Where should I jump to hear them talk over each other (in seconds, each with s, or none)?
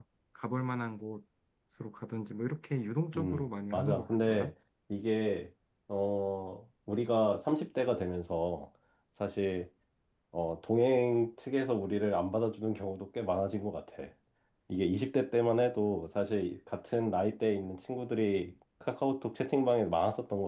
3.1 s